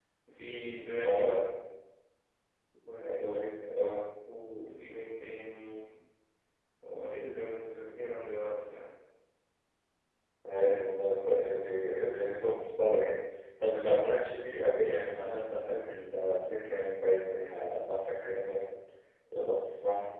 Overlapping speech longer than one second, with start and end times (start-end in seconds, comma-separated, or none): none